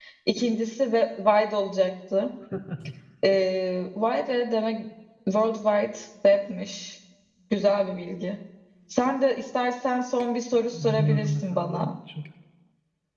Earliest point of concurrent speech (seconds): 10.5 s

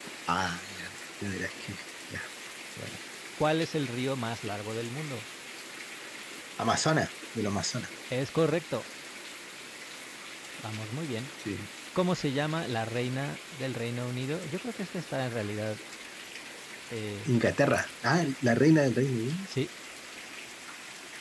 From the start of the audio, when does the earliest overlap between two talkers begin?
none

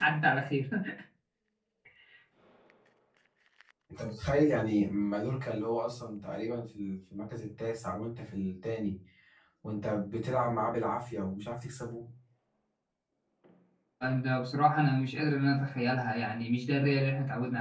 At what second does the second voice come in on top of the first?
none

